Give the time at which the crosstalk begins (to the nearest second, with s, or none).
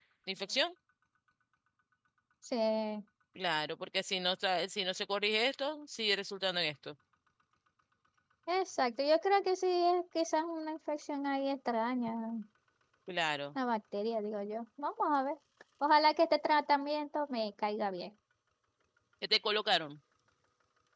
none